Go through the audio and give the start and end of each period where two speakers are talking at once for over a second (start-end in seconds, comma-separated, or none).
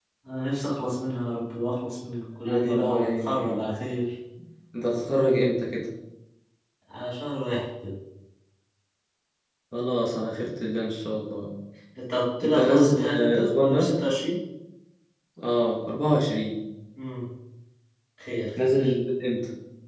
2.5-3.7, 12.4-13.9